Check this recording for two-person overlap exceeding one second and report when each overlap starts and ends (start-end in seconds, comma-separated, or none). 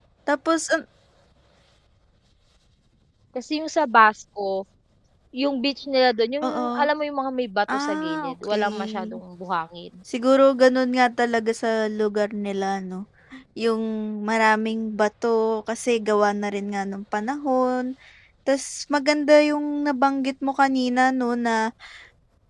7.7-9.2